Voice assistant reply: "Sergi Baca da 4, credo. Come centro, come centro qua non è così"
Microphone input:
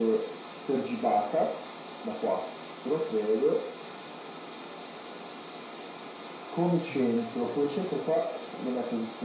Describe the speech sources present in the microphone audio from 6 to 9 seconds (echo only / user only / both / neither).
both